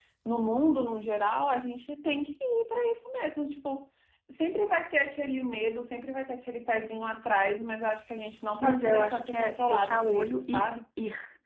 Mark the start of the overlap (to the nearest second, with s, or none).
9 s